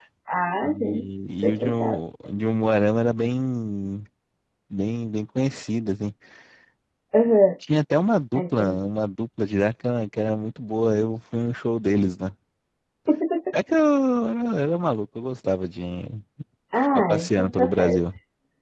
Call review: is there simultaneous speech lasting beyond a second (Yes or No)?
Yes